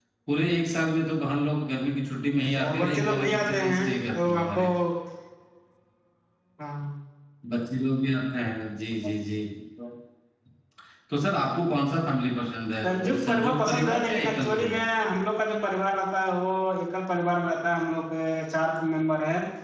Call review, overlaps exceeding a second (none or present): present